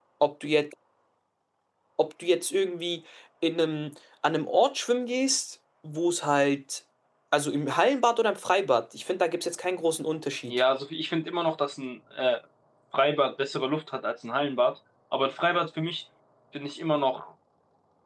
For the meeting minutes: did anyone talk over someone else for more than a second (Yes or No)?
No